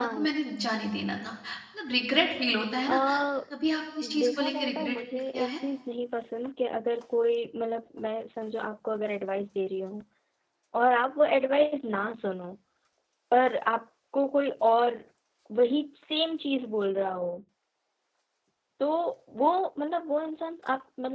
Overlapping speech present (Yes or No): Yes